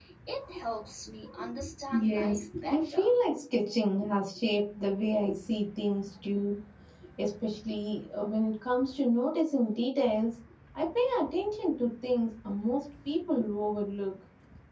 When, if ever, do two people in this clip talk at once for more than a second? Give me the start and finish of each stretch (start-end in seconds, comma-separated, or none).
1.9-3.2